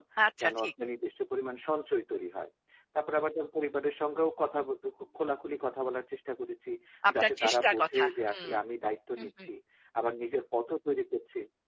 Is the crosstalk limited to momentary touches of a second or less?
No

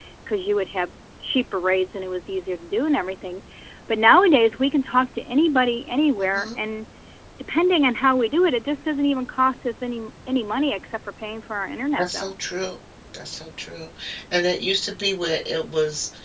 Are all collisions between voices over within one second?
Yes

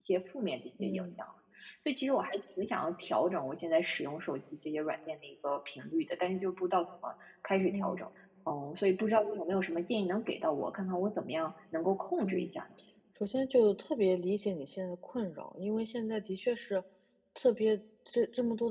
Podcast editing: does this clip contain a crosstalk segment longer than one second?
No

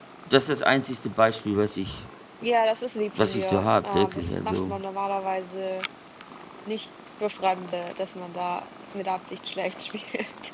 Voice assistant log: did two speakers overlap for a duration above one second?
Yes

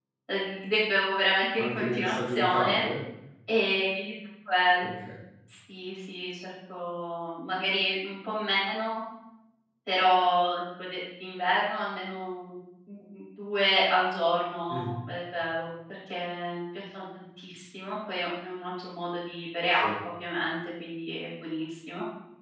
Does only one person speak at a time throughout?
No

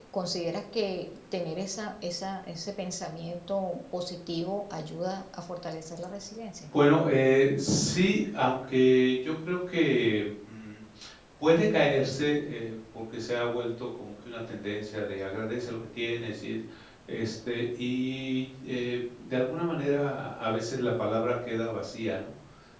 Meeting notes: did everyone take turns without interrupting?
Yes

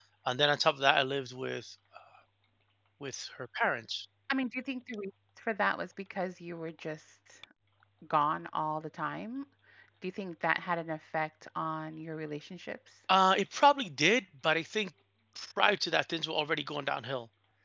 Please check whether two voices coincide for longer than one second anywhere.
No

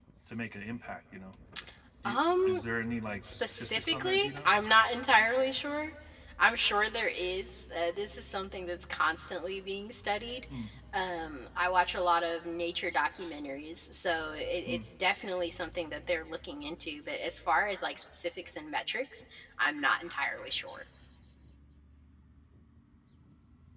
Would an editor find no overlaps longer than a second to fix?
No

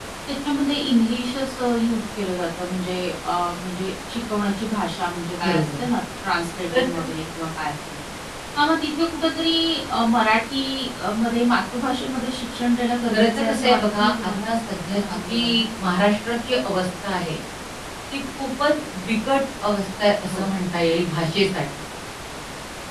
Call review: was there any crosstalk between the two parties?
Yes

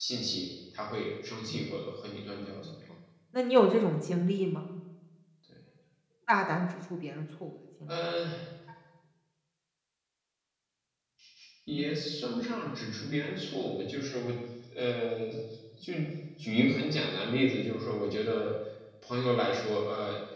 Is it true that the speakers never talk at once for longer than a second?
Yes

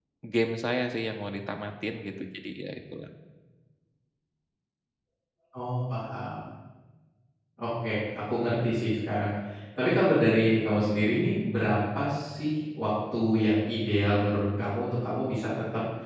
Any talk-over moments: No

